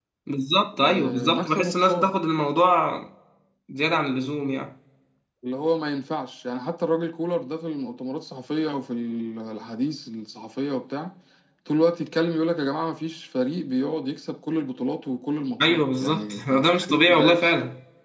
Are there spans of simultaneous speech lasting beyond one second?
Yes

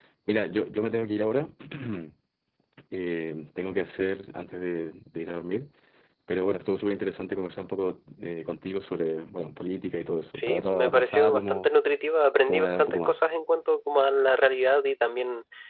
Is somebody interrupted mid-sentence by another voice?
Yes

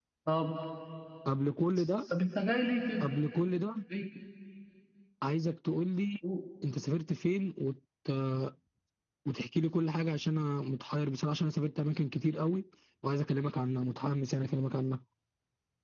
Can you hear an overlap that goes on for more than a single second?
No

